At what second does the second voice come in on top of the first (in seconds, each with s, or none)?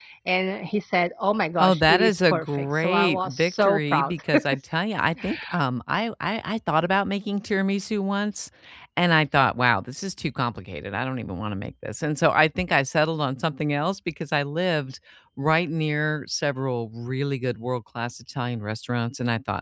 1.6 s